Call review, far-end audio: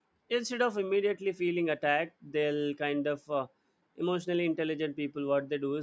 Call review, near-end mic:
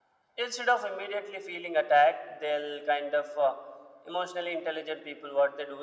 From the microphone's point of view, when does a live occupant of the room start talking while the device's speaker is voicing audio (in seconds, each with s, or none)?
none